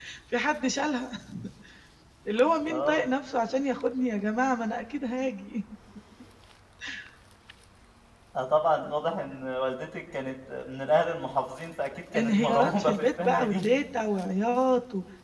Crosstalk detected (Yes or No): Yes